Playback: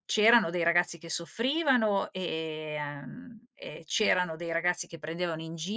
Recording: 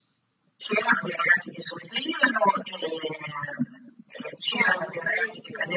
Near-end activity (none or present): present